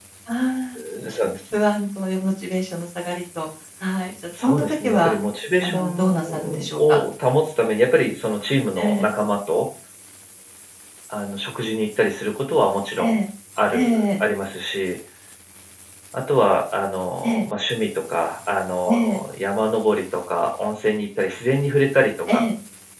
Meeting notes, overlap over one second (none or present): present